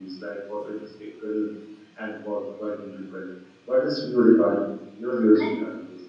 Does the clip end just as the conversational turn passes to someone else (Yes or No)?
Yes